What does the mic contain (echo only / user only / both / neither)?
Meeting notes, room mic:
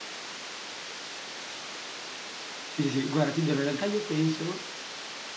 user only